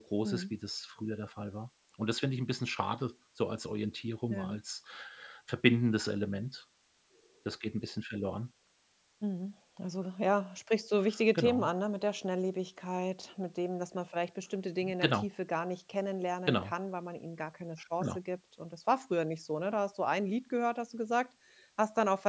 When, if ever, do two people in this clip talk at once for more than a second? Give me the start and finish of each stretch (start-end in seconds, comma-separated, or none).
none